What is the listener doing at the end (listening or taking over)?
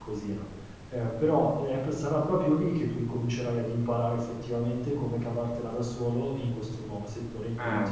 taking over